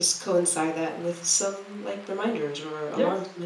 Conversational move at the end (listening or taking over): taking over